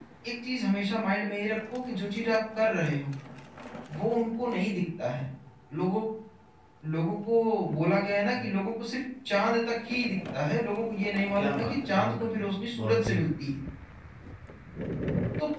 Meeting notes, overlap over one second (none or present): present